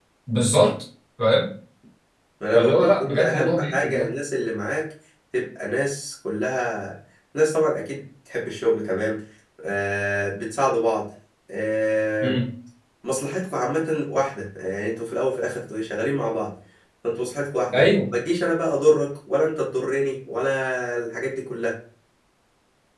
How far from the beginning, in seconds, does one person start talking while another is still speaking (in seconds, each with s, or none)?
2.5 s